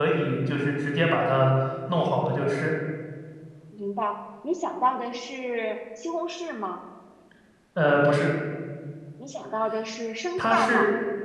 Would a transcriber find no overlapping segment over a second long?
Yes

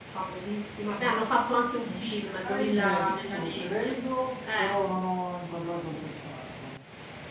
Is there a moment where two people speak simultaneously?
Yes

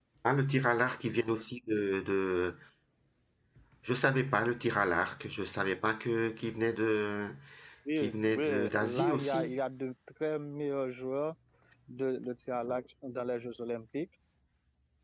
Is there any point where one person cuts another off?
Yes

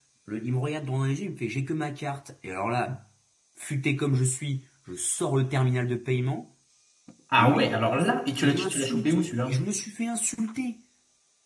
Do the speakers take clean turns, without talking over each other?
No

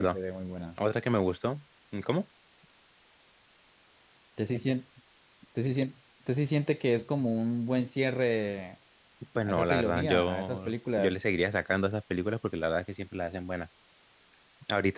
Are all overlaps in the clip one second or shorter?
No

